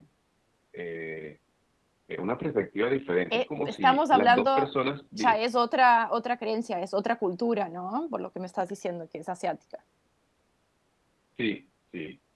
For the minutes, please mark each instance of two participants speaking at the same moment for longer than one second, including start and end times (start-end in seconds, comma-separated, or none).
3.3-4.7